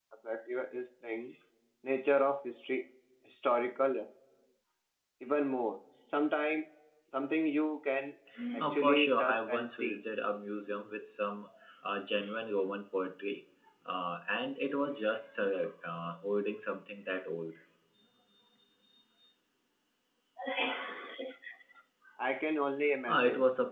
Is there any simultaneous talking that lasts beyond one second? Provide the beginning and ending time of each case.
8.6-10.0

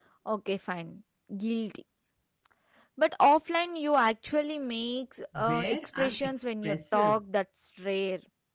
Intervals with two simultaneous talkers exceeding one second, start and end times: 5.3-7.2

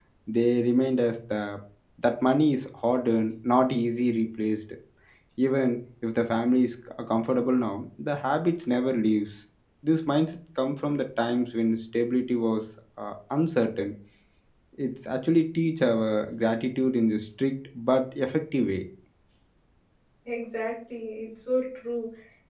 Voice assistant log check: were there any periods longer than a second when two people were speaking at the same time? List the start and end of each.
none

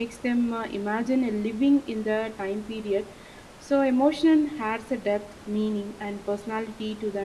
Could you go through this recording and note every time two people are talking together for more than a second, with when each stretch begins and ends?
none

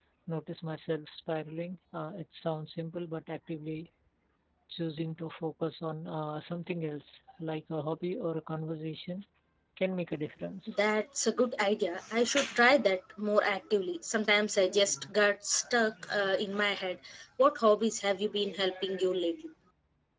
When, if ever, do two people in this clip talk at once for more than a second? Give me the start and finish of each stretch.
none

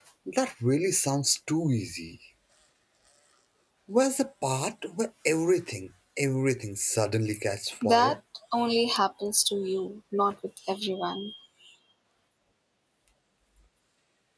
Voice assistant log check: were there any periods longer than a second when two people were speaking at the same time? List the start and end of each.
none

